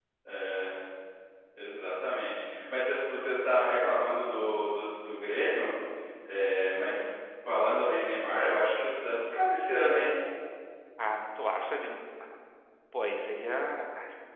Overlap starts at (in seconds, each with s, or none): none